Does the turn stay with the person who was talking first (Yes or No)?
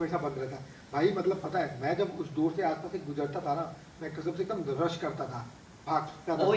No